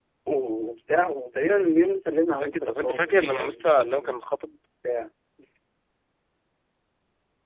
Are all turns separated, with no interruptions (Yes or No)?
No